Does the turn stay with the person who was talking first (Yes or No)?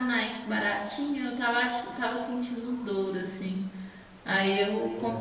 Yes